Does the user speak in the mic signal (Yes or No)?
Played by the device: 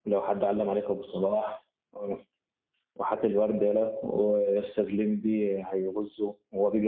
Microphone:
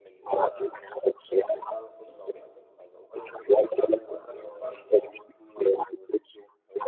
Yes